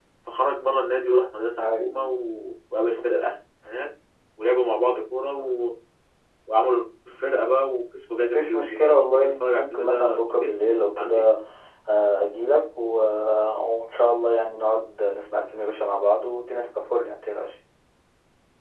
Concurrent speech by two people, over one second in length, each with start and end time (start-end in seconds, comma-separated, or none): 8.2-10.5